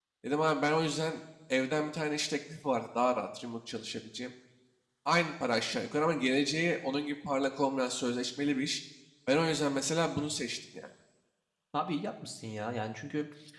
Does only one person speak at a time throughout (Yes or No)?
Yes